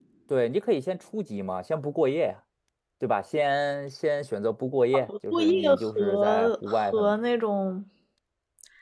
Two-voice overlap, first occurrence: 4.9 s

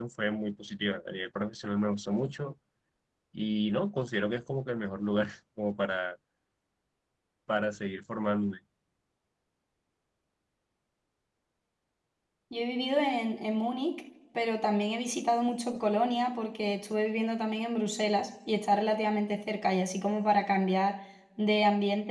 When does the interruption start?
none

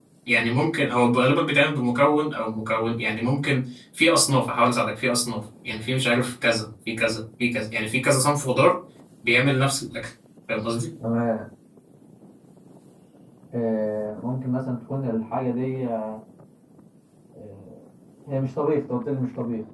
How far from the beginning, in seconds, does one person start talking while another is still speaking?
none

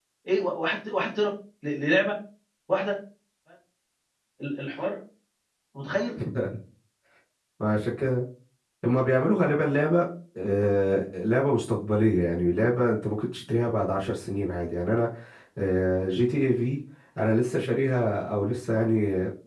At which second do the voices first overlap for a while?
none

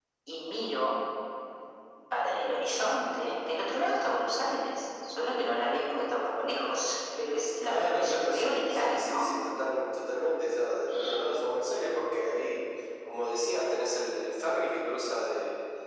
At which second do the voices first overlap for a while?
7.6 s

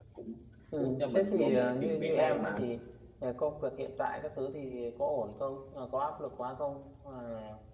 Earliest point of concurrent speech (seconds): 0.8 s

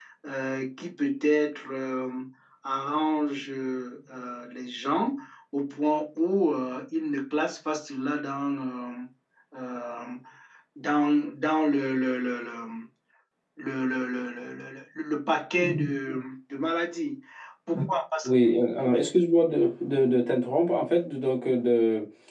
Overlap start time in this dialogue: none

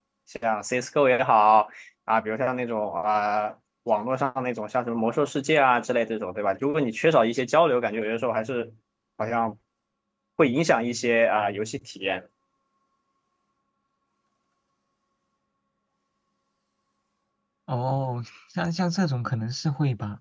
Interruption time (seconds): none

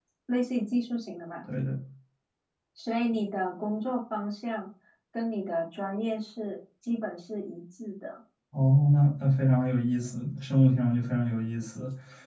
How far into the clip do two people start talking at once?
none

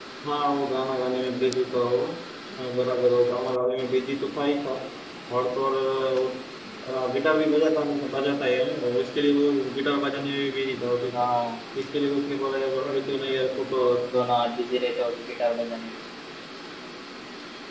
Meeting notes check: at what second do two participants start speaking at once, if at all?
none

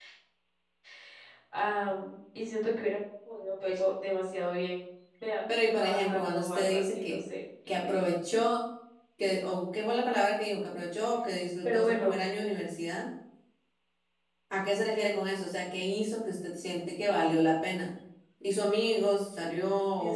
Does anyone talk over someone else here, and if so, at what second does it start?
5.7 s

